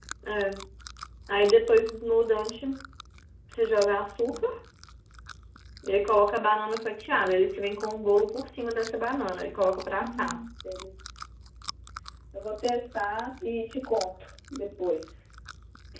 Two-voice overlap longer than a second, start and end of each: none

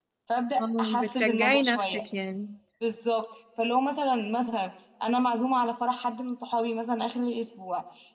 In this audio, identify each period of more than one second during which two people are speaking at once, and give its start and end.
0.6-2.0

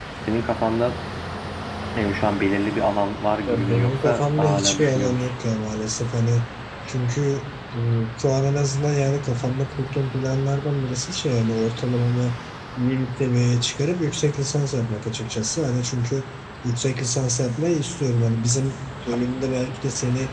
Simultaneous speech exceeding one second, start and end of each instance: 3.5-5.3

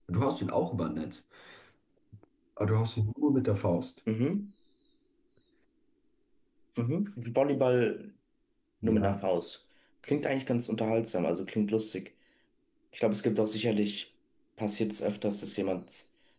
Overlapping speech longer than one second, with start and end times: none

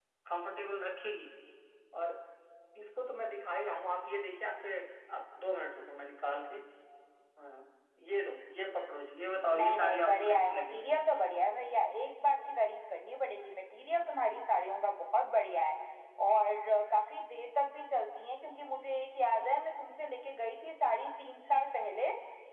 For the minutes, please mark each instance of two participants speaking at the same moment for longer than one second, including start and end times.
9.6-10.9

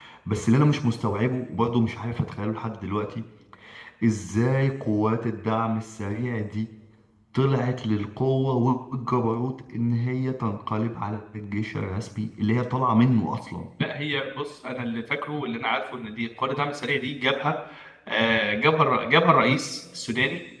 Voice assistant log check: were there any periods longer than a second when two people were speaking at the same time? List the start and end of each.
none

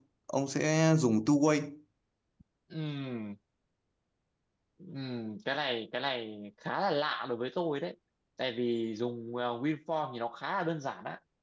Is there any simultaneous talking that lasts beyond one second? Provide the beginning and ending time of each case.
none

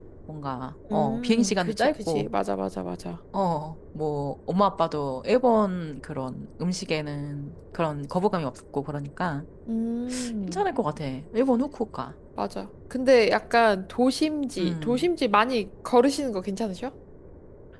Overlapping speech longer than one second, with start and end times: 0.9-2.3

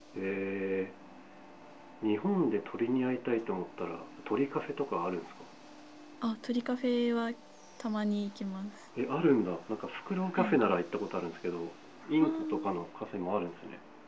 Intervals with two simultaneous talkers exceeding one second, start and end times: none

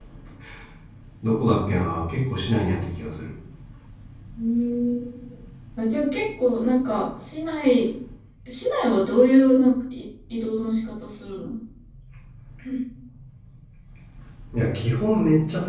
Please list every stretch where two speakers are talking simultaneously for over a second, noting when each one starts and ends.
none

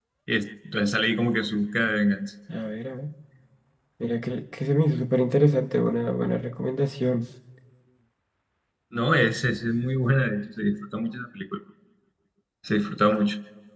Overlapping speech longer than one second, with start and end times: none

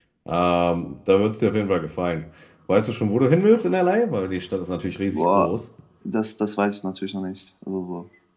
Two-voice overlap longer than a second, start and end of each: none

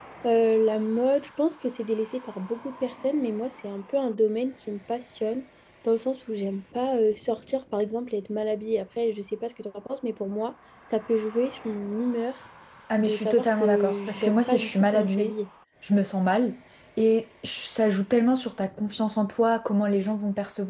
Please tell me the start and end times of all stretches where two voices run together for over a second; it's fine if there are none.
13.0-15.3

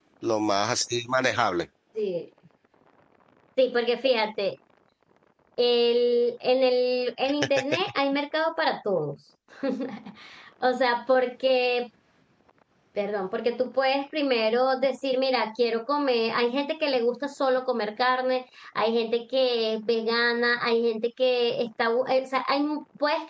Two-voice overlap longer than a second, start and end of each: none

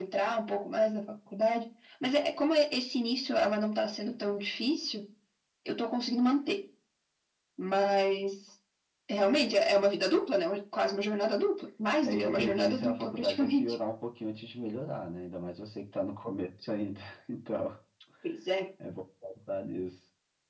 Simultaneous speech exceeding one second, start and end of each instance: 12.0-13.8

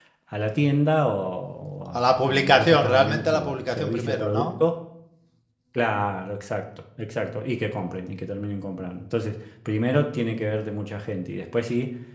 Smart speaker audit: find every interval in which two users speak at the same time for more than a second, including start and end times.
1.9-4.5

